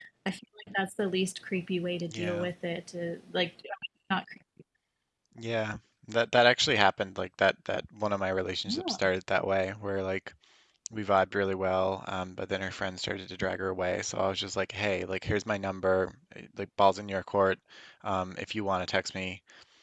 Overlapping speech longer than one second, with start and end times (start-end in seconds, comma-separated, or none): none